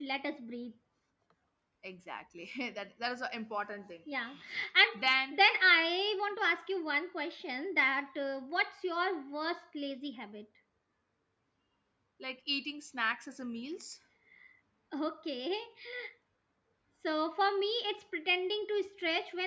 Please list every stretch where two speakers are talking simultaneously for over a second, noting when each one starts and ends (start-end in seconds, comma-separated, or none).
none